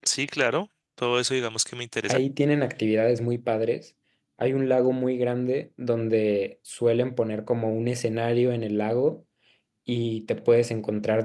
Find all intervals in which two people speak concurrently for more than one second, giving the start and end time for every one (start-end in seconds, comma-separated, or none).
none